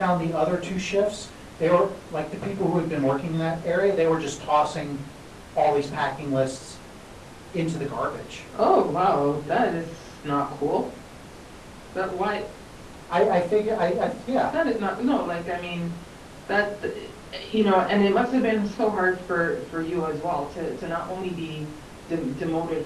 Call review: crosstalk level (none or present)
none